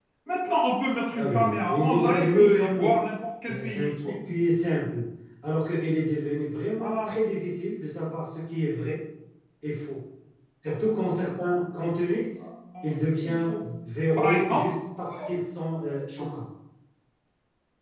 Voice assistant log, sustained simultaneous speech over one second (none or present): present